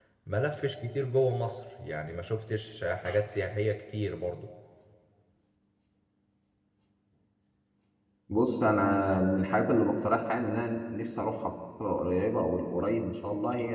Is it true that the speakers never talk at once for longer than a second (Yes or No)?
Yes